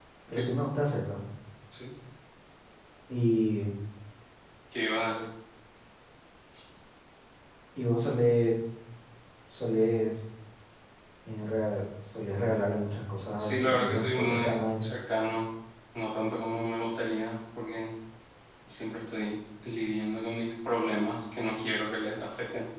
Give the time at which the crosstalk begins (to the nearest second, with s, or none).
13 s